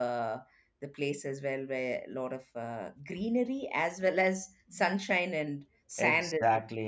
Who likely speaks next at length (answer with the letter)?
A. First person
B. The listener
B